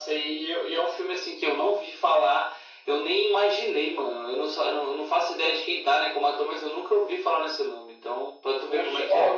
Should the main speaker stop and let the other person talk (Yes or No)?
Yes